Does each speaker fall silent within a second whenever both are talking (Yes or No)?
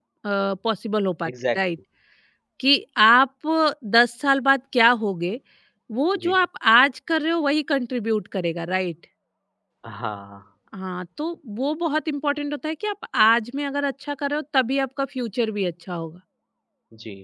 Yes